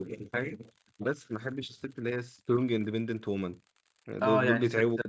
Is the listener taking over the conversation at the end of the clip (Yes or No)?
Yes